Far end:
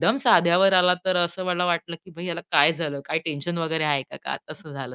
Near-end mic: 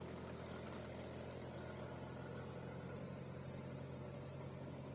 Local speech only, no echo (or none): none